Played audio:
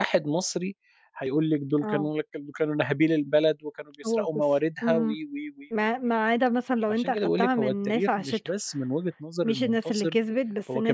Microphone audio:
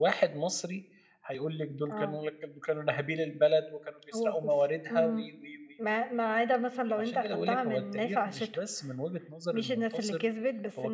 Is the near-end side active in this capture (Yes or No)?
No